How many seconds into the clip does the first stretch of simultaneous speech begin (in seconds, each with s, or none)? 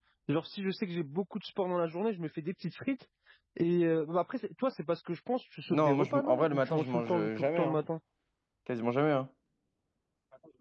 5.7 s